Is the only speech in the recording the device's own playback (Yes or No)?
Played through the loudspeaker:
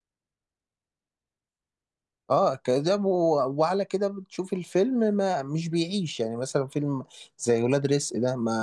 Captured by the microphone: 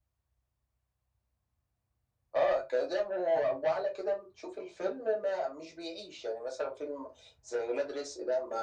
Yes